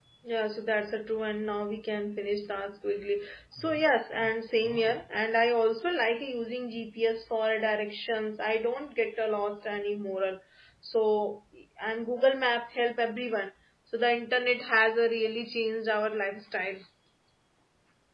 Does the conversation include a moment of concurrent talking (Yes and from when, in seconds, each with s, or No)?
No